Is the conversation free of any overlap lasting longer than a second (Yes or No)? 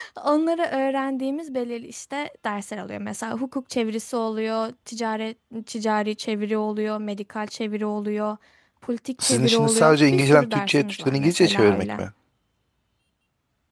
No